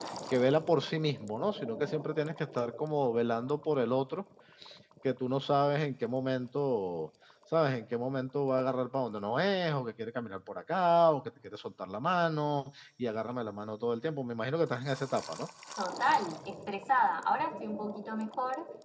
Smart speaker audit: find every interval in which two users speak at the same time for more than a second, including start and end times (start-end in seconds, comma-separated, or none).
none